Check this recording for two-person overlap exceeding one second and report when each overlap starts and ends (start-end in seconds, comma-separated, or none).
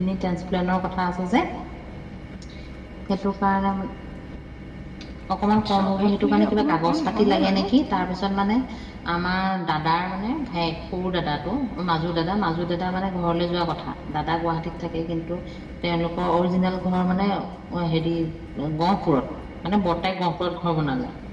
5.7-7.7